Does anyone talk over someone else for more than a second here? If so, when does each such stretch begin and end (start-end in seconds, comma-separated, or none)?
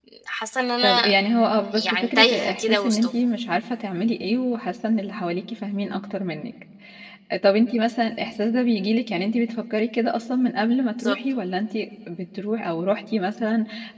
1.9-3.1